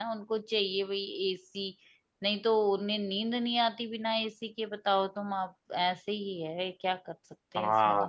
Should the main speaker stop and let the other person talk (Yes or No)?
Yes